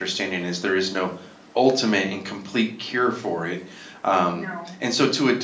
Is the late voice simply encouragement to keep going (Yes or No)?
Yes